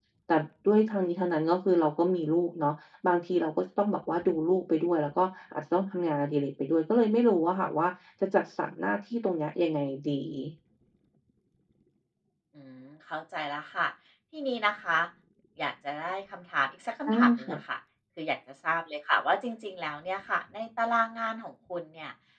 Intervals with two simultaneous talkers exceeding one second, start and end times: none

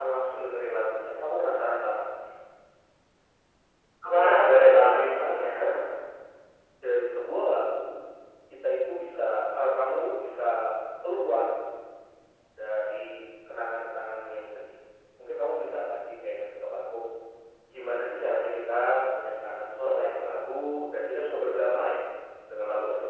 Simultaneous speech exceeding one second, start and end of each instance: 4.1-5.5

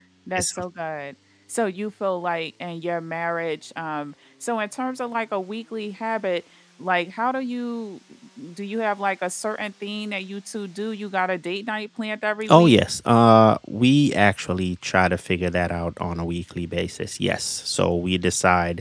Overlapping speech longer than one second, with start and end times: none

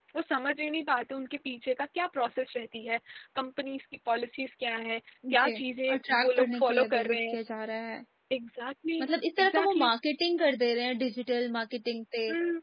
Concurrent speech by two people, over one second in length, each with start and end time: 5.9-7.3

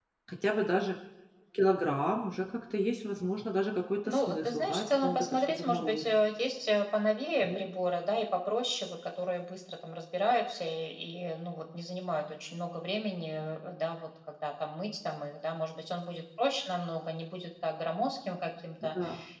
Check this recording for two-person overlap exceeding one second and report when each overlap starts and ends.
4.1-6.0

